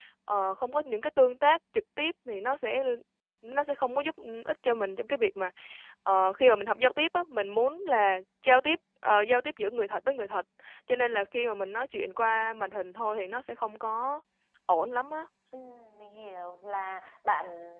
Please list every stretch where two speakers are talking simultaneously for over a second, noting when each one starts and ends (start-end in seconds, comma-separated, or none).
none